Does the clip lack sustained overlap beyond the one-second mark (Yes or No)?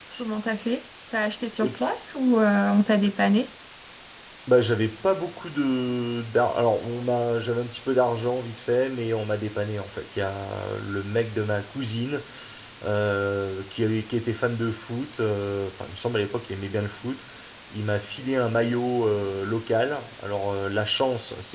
Yes